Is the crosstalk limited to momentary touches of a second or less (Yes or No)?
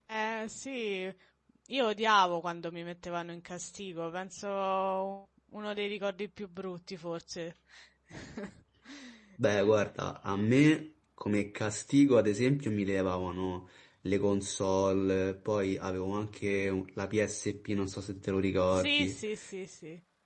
Yes